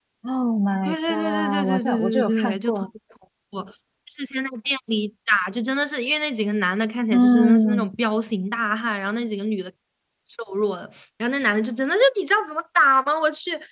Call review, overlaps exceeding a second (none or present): present